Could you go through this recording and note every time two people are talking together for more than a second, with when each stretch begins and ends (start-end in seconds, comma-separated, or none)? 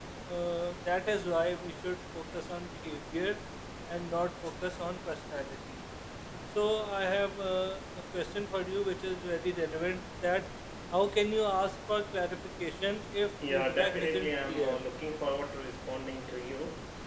13.5-14.8